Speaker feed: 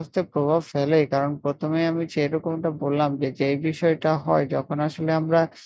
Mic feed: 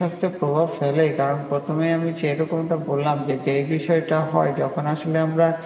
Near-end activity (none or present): none